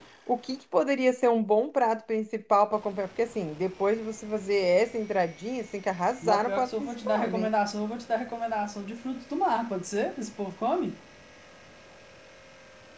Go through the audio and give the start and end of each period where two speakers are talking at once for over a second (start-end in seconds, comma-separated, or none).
6.2-7.5